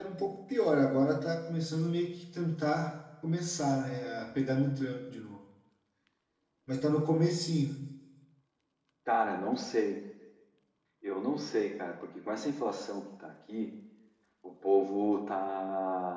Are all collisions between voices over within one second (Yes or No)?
Yes